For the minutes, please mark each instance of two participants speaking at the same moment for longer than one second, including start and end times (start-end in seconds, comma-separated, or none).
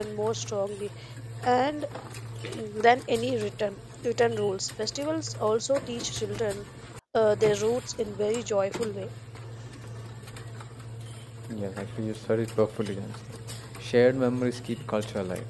none